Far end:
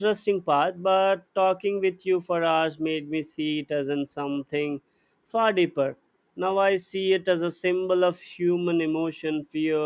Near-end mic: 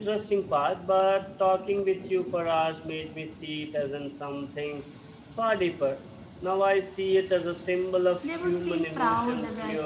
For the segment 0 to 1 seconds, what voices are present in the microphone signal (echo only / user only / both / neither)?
echo only